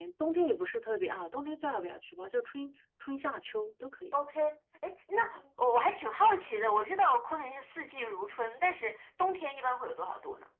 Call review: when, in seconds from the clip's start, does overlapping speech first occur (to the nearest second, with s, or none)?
none